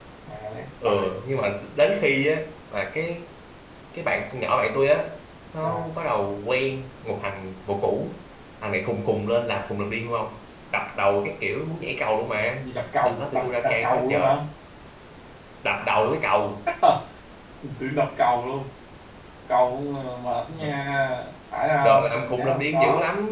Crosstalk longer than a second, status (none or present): present